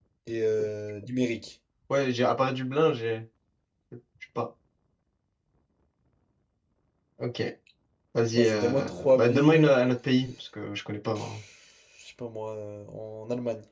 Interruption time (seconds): 8 s

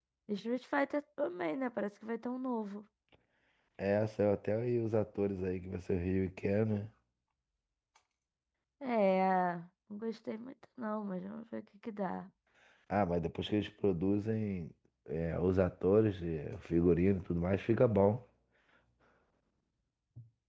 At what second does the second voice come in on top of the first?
none

